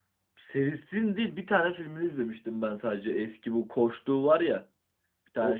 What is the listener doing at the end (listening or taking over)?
taking over